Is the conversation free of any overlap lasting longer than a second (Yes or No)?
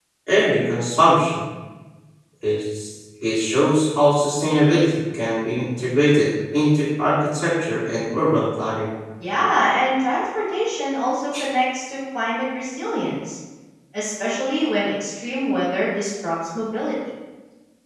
Yes